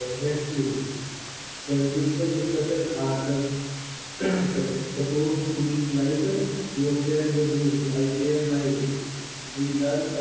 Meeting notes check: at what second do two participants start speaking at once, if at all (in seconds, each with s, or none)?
none